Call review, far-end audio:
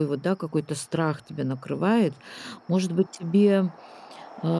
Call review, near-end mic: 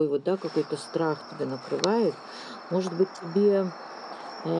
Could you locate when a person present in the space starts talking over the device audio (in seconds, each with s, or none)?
none